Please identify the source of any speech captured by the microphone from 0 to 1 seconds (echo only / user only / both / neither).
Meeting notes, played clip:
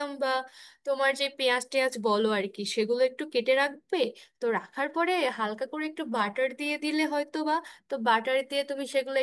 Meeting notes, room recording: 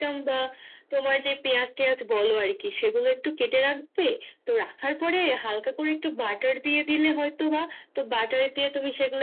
echo only